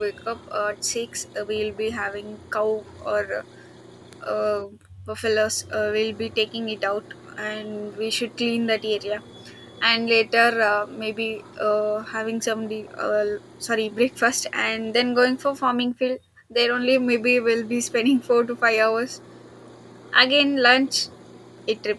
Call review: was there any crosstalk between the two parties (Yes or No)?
No